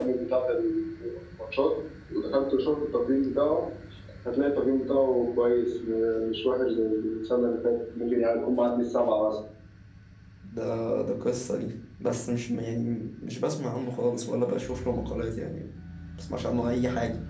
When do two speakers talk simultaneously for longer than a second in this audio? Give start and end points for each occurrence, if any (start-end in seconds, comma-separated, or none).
none